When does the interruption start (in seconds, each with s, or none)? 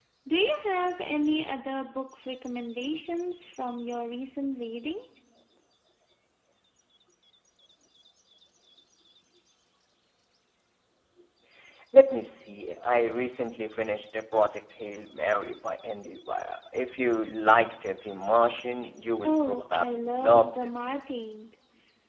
19.2 s